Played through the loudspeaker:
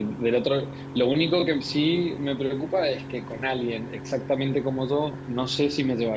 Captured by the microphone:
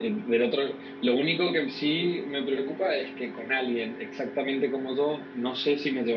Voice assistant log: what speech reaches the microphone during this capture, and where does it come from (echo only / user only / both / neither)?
echo only